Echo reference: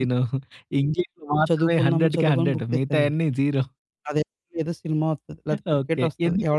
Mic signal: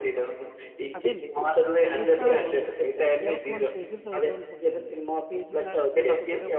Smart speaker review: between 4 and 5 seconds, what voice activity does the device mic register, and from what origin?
both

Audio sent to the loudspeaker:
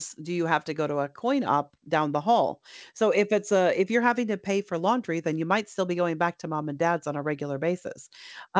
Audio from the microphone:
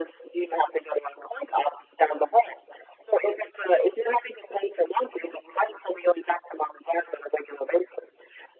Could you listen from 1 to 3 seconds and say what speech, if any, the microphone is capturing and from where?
echo only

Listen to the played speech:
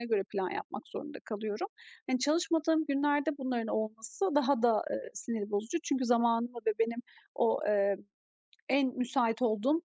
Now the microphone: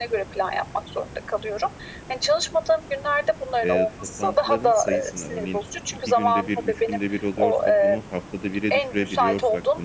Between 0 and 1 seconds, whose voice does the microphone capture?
echo only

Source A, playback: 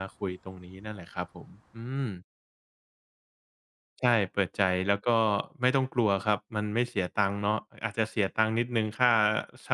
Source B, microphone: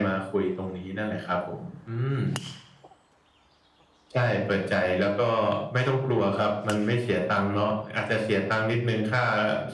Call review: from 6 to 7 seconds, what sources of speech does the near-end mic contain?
echo only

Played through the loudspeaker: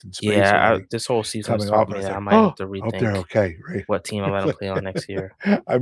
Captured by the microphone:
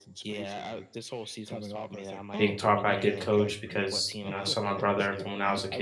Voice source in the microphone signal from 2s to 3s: both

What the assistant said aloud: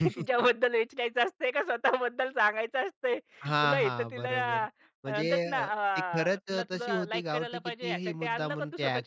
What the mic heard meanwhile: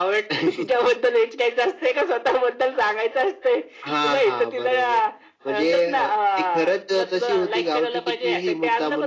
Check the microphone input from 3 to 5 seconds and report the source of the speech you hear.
echo only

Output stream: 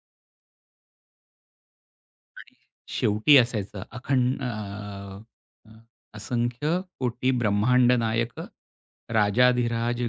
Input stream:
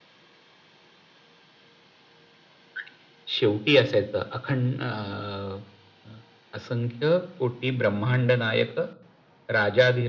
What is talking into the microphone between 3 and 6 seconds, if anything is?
echo only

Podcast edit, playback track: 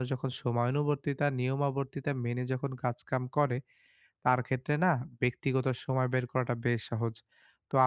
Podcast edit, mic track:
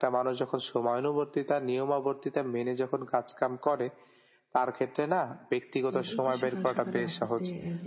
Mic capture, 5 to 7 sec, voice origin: both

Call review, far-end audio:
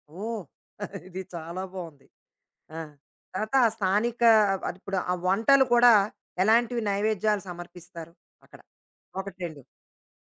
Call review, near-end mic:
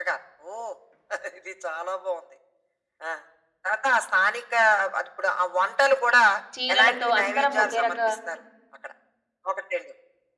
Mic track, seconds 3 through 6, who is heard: echo only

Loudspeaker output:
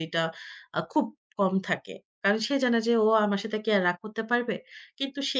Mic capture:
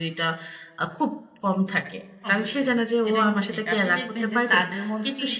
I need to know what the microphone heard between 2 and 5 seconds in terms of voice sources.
both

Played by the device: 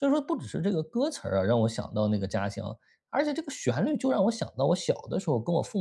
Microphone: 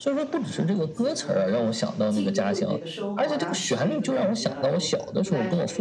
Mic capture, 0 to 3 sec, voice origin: both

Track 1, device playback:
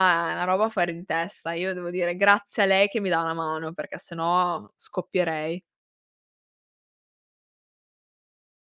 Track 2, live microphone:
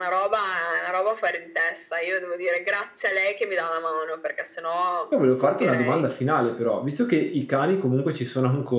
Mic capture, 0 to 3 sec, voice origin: echo only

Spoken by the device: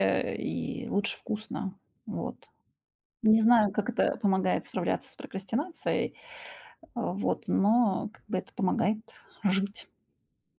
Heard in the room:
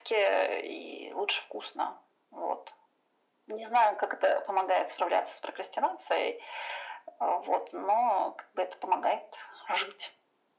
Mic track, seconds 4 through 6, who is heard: echo only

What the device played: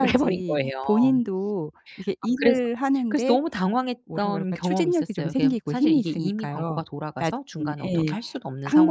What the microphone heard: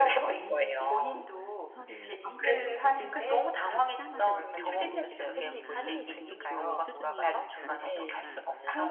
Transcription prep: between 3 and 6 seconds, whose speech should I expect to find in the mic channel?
both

